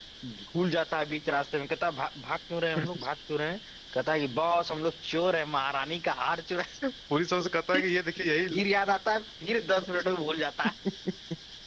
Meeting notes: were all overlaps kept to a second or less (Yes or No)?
Yes